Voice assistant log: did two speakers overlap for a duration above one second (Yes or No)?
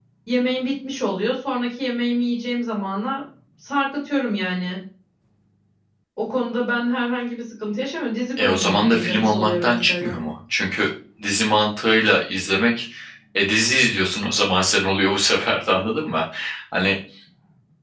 Yes